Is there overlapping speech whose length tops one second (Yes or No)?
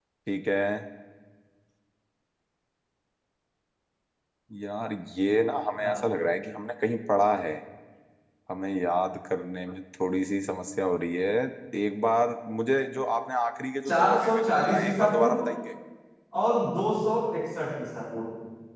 Yes